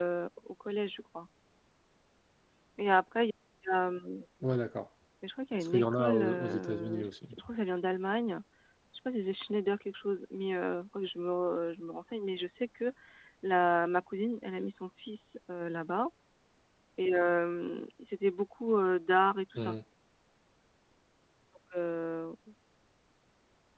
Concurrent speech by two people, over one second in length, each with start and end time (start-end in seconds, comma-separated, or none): 5.7-7.3